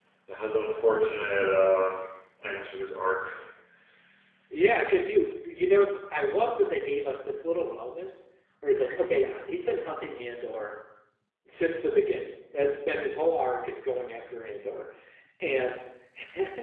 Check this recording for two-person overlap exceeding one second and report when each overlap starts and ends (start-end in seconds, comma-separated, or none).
none